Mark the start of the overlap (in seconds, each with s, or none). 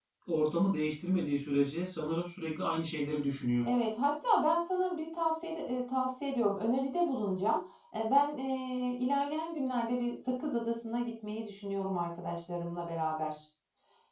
none